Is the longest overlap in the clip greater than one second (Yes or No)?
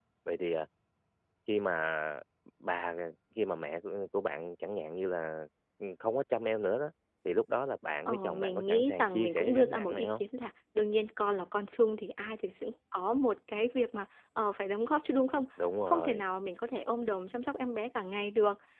Yes